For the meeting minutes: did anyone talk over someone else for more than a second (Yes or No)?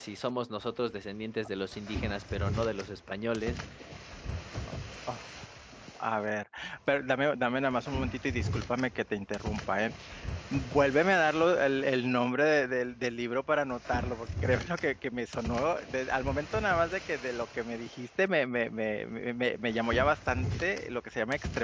No